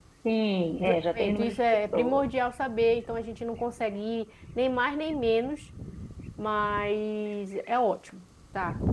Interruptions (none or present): present